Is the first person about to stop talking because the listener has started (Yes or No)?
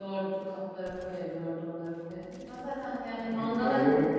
Yes